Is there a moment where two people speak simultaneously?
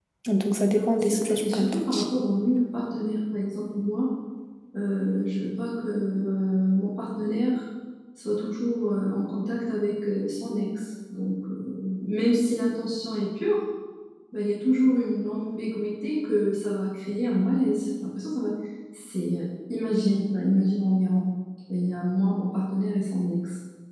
Yes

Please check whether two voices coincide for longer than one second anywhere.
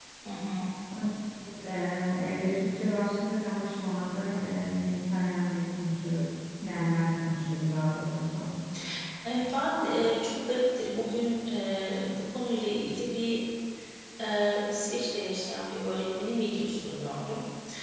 No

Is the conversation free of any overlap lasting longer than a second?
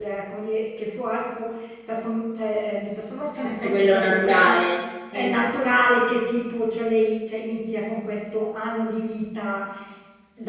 No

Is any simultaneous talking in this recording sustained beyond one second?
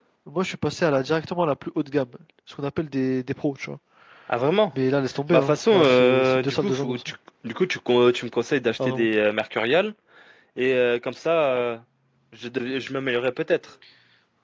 Yes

